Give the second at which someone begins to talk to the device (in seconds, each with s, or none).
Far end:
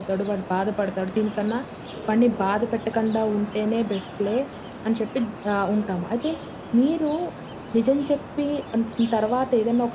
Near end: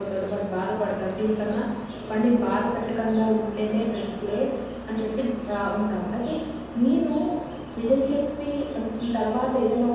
none